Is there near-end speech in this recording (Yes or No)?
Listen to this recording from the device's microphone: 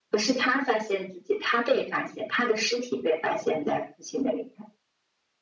No